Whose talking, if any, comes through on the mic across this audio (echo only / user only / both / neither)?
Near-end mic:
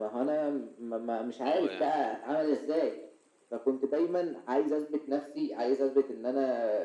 both